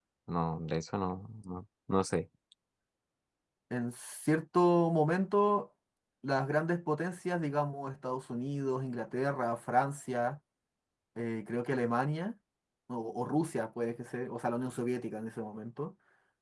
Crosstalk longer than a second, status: none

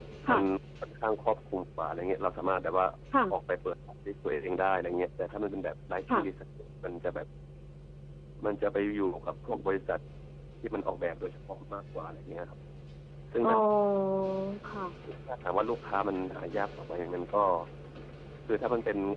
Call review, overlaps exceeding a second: none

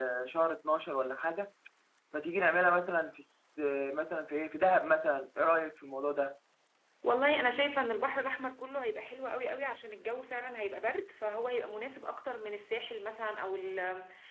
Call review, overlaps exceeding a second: none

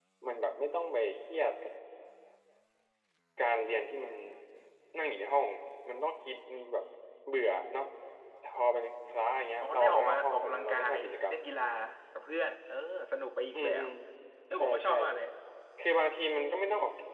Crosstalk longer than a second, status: present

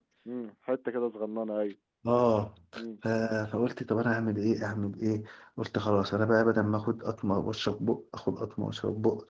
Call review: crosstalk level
none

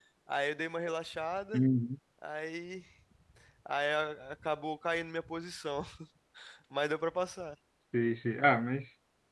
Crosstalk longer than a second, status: none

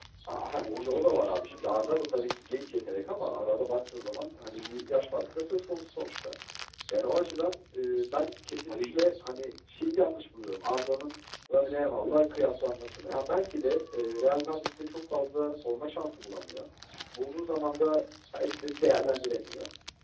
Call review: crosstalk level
present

